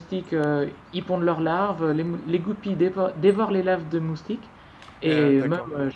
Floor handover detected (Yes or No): No